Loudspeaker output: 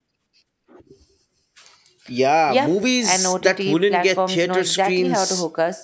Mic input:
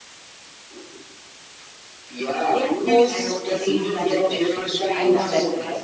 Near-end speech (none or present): present